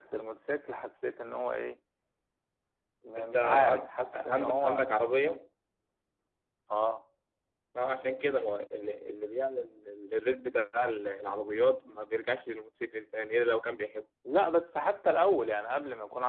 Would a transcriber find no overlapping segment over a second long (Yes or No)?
No